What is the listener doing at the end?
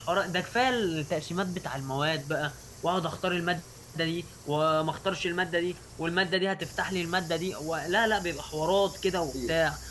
listening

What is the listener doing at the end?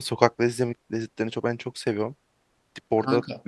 listening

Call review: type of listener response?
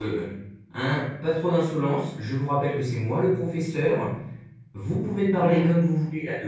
listening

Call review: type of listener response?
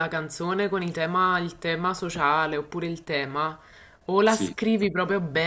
listening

